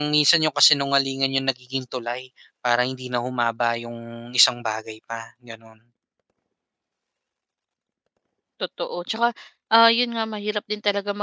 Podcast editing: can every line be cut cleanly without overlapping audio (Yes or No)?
Yes